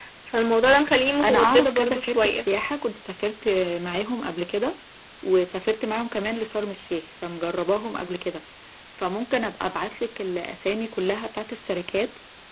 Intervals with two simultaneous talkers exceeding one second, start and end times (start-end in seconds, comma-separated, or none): 1.2-2.5